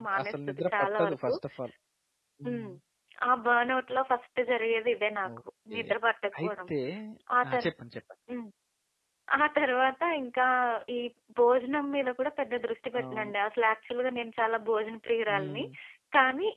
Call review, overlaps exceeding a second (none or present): present